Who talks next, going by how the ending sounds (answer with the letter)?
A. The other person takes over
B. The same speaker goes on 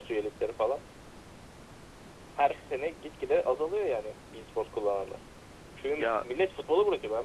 B